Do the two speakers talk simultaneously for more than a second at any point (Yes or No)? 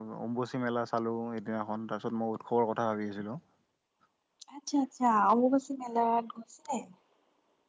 No